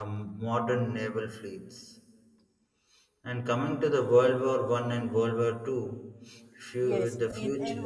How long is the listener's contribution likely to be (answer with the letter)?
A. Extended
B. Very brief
A